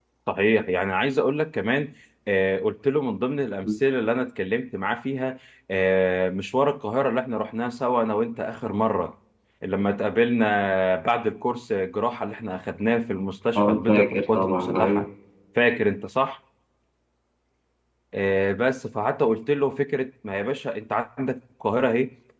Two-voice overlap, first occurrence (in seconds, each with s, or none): 13.6 s